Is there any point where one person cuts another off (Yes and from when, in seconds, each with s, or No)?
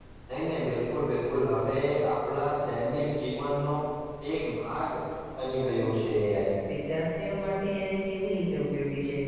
No